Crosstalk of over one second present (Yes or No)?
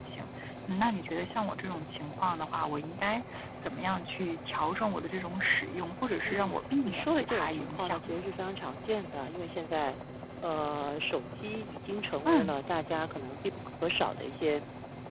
Yes